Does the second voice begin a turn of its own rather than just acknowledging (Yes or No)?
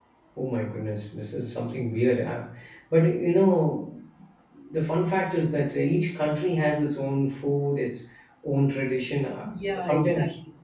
Yes